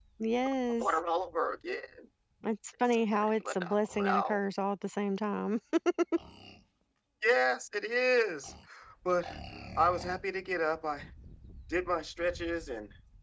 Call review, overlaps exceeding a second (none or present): present